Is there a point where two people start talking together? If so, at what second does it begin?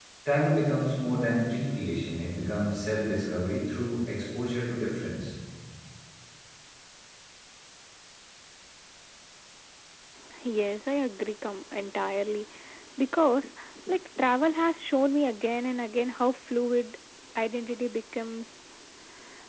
none

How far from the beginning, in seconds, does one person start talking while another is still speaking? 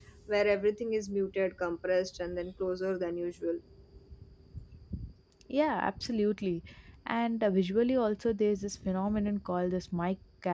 none

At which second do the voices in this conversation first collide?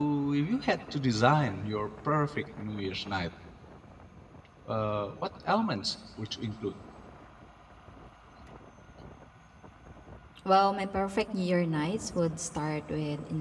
none

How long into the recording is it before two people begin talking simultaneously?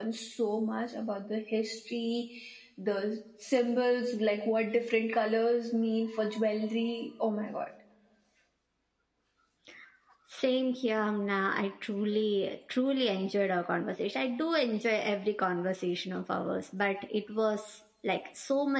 none

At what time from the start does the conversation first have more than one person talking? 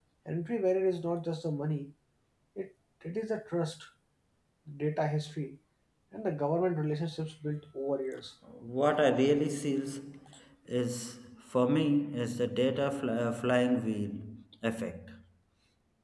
none

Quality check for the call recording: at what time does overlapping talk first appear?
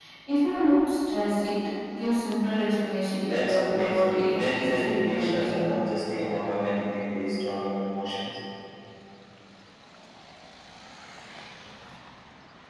3 s

